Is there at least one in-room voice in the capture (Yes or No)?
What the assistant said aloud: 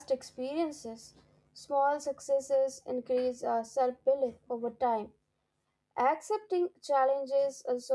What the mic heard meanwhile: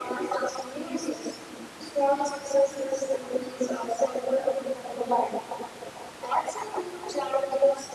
No